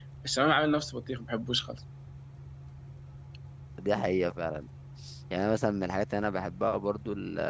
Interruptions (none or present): none